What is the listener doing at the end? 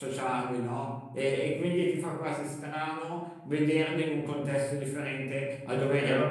listening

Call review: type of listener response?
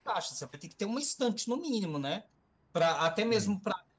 listening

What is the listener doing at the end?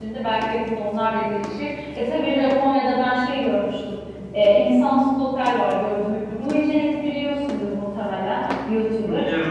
listening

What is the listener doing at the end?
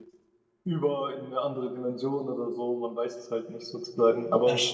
taking over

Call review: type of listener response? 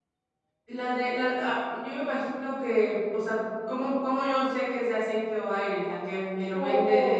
taking over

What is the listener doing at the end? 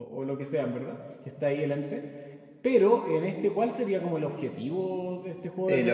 taking over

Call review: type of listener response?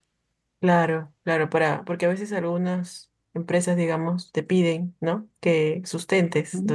listening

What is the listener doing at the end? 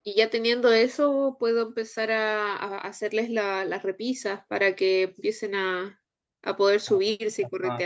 taking over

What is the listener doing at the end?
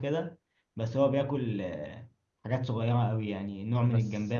listening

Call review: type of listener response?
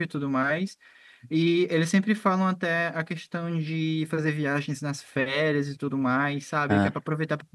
listening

